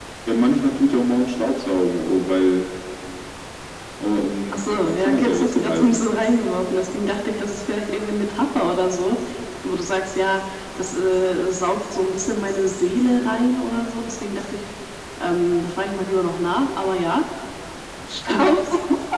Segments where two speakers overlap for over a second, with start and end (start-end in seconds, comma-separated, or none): 4.5-6.0